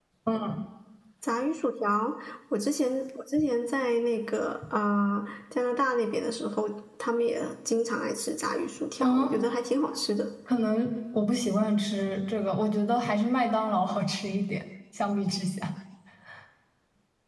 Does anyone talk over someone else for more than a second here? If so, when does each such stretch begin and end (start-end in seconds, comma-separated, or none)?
none